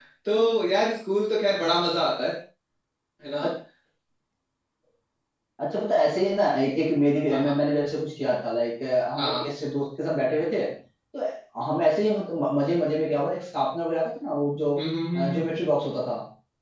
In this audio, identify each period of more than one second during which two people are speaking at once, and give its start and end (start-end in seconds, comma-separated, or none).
none